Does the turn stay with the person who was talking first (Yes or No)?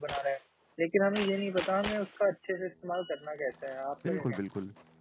No